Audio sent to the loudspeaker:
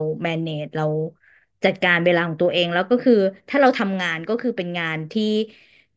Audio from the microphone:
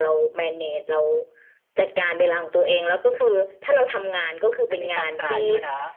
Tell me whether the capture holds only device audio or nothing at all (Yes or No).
No